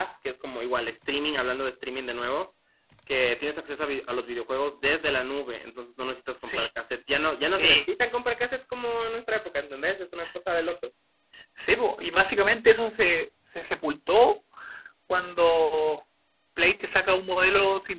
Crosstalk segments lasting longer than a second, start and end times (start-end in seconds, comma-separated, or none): none